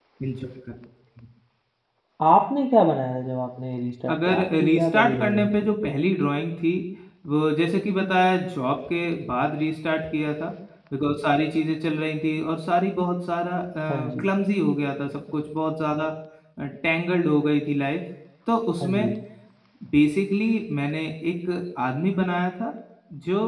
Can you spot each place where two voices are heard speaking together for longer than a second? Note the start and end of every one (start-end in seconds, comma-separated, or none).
4.1-5.5